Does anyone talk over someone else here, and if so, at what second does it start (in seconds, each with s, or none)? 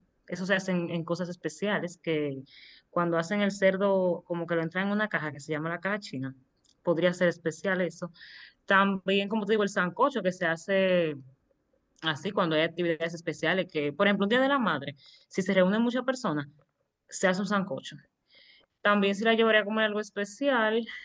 none